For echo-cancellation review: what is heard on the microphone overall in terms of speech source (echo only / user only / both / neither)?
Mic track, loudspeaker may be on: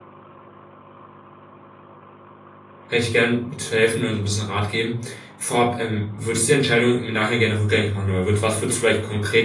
user only